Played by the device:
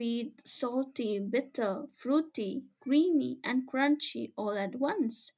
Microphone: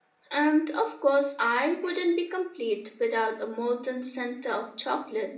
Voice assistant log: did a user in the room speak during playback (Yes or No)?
Yes